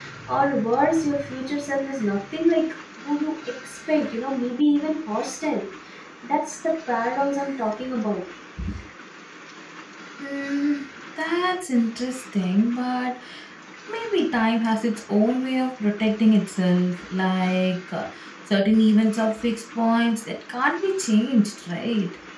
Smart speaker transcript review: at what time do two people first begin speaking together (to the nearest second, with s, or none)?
none